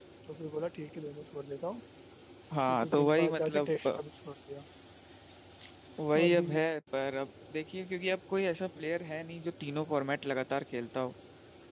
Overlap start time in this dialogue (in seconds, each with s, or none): 2.7 s